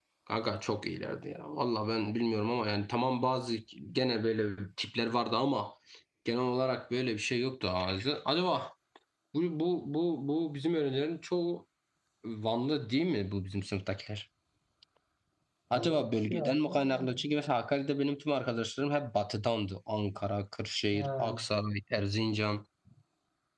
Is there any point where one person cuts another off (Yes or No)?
Yes